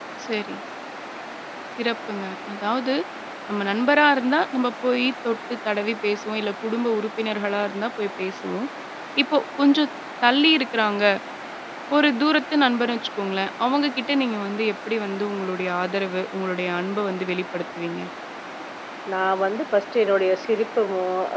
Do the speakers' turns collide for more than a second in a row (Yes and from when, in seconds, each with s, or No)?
No